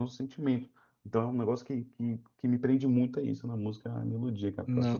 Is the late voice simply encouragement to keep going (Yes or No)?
No